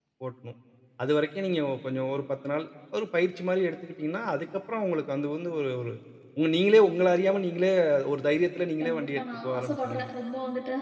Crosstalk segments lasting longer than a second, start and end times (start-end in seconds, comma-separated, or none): 8.8-10.1